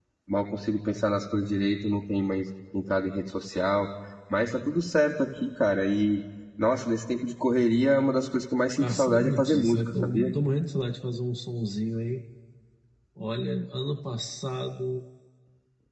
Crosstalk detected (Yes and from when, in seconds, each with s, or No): Yes, from 8.8 s